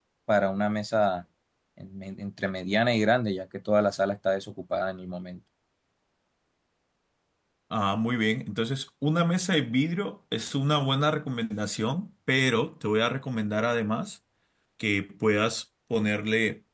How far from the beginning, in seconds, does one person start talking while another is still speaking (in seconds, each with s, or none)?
none